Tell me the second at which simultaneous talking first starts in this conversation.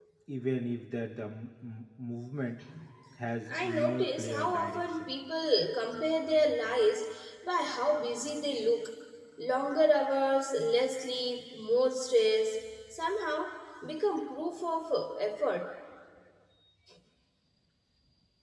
3.5 s

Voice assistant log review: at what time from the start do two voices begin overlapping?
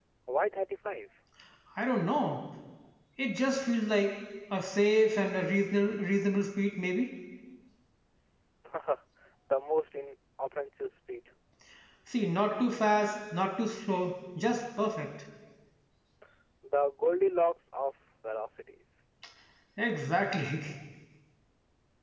none

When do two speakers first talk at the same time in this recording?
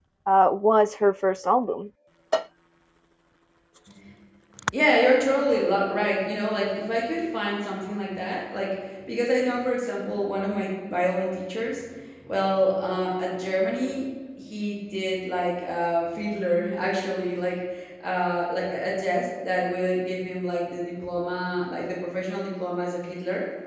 none

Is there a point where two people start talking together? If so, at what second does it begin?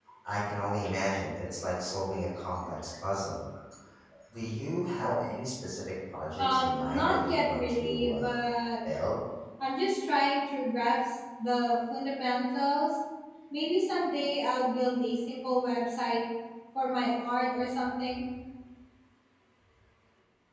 6.4 s

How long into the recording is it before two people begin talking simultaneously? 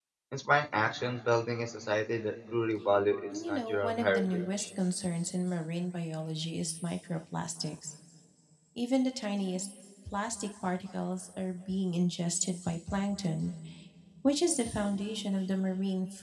3.3 s

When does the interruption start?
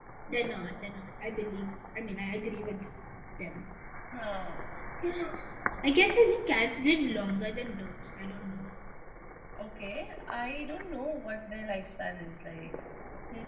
none

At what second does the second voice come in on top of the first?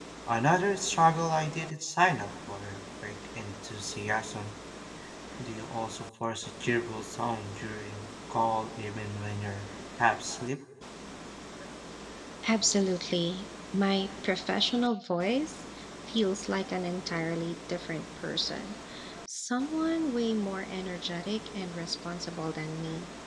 none

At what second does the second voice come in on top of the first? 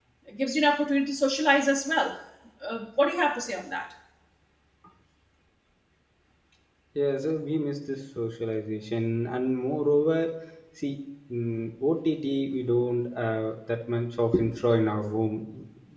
none

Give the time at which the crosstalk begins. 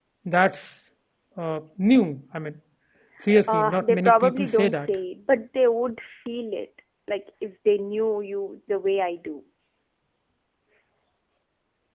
3.5 s

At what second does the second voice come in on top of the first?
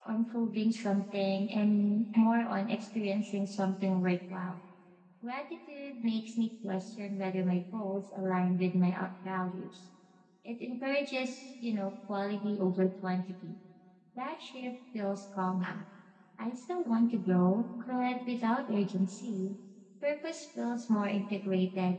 none

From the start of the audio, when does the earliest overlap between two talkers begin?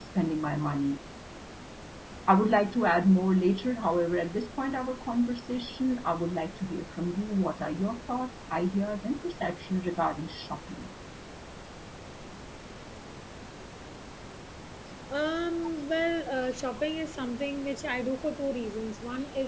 none

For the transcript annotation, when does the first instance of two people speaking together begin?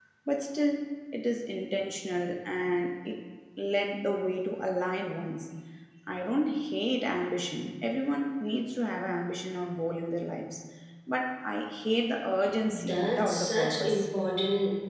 12.7 s

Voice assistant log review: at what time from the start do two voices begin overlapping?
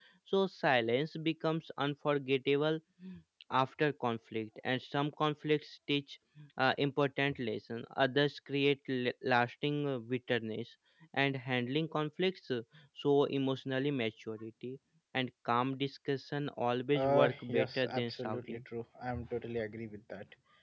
16.9 s

